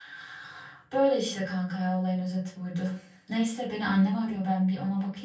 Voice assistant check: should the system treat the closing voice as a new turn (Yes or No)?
No